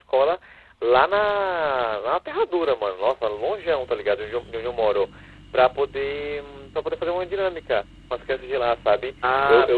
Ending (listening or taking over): taking over